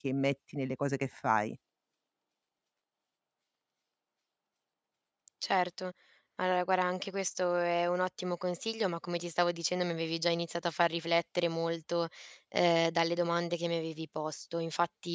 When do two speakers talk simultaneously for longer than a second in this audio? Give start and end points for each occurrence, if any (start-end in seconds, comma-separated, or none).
none